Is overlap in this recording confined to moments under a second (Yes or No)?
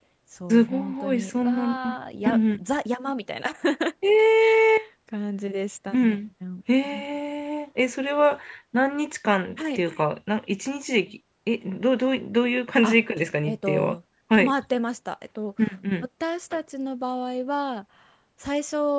No